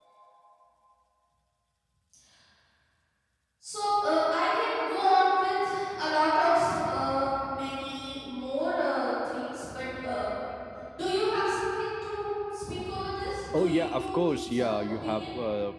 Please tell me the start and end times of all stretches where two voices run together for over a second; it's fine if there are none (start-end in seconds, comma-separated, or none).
13.5-15.3